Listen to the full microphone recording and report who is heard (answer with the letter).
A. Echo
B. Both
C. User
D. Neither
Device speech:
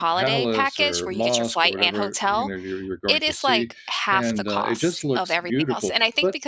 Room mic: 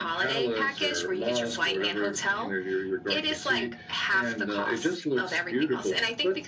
A